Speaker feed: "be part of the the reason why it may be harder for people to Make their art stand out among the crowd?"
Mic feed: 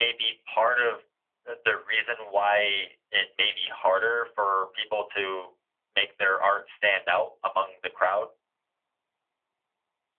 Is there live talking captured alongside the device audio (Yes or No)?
No